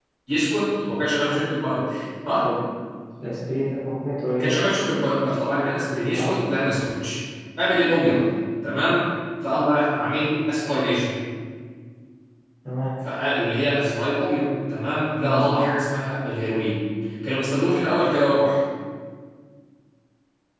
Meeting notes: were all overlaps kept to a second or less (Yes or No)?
Yes